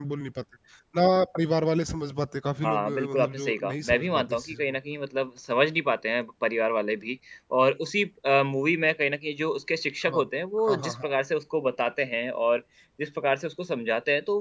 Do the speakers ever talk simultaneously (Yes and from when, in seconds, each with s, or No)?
Yes, from 2.6 s